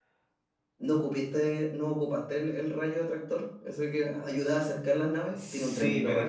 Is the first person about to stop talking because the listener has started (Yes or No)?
Yes